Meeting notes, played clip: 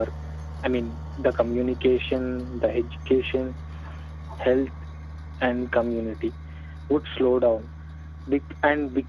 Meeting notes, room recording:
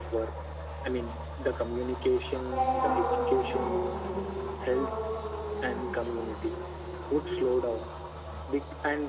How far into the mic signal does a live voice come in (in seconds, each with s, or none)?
2.3 s